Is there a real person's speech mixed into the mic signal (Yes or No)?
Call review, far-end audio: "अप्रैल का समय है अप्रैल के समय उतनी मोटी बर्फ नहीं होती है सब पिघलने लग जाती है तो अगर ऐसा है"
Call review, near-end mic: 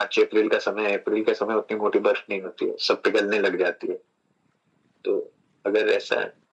No